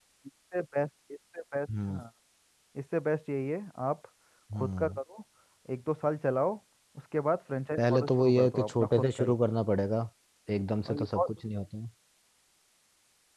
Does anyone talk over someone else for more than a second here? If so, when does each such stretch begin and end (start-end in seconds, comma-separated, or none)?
7.8-9.4